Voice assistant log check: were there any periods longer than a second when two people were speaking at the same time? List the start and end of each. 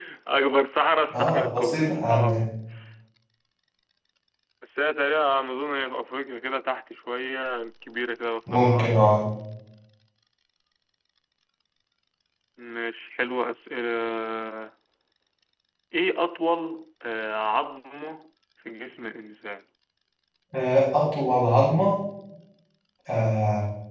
1.1-2.4

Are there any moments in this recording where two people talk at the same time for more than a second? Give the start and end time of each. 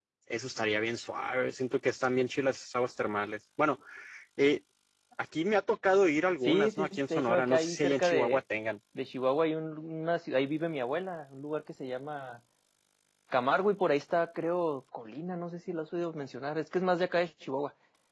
6.5-8.4

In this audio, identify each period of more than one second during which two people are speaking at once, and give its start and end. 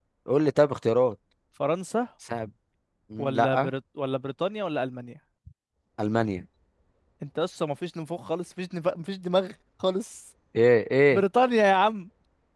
none

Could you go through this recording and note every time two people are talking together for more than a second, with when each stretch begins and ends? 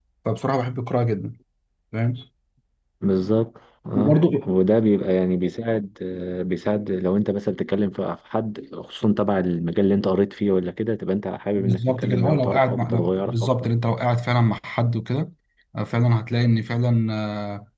11.6-13.7

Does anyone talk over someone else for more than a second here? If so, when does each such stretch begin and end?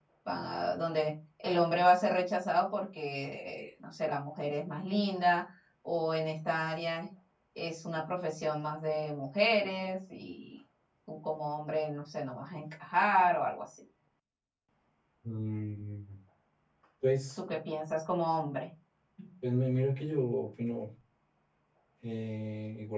none

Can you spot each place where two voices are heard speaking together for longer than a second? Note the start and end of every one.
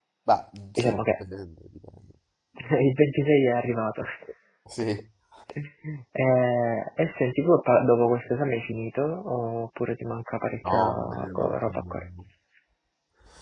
10.7-11.9

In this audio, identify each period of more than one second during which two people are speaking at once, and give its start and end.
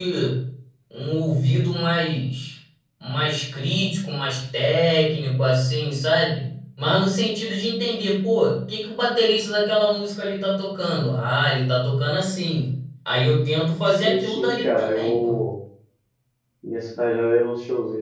14.0-15.4

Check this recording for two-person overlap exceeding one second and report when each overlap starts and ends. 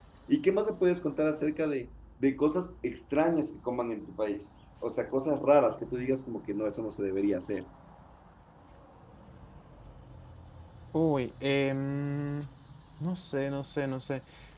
none

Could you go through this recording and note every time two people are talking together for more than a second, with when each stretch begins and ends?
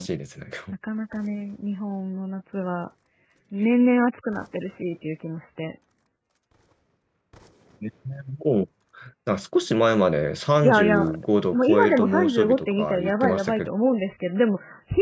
11.5-13.7

